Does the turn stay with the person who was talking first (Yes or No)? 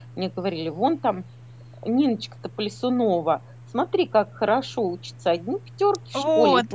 Yes